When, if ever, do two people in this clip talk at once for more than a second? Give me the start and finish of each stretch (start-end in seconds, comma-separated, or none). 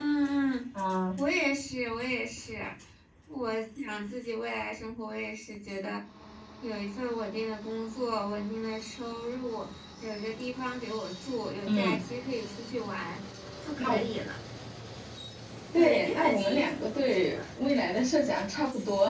15.8-17.4